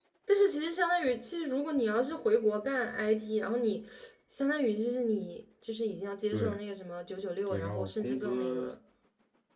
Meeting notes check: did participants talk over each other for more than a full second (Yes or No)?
Yes